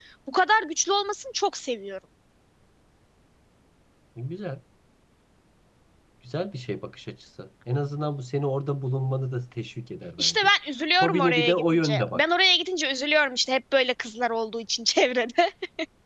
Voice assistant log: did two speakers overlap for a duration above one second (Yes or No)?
Yes